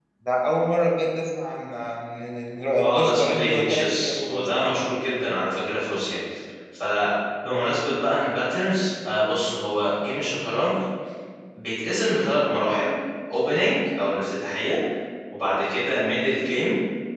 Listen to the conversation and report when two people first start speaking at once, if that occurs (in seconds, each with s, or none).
2.7 s